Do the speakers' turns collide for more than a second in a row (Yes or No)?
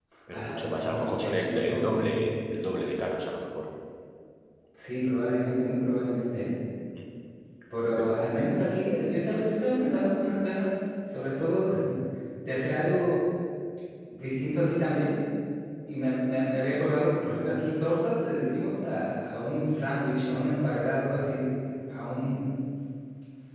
Yes